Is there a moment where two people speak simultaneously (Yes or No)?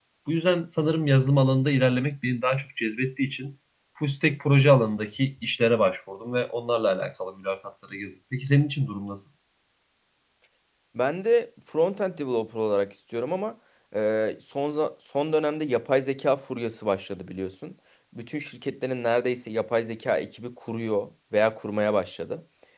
No